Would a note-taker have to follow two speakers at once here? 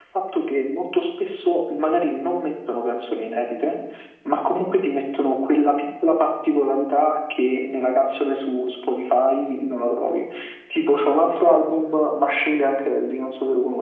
No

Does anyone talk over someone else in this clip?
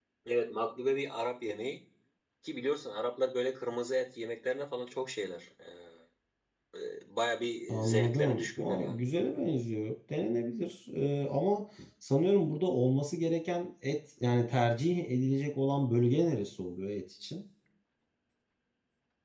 Yes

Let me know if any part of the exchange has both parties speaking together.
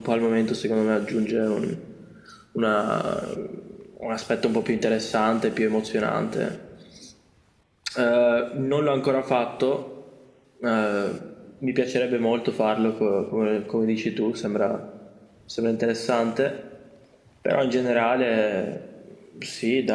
No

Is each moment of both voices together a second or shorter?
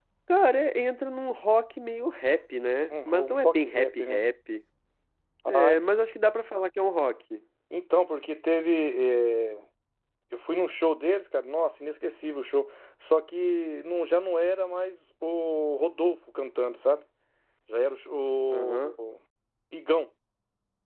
No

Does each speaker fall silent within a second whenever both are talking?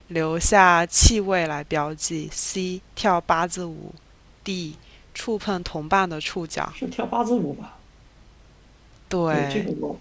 Yes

